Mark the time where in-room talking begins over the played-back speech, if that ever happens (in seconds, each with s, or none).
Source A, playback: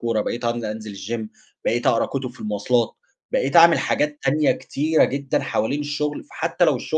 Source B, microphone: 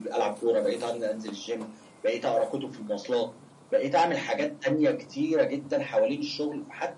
none